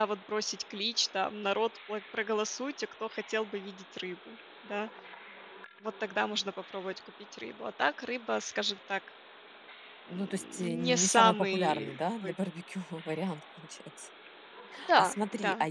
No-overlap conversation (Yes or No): No